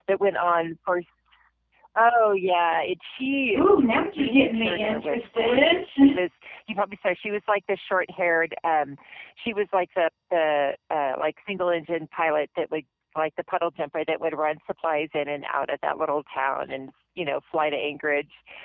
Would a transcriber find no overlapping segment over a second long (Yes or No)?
No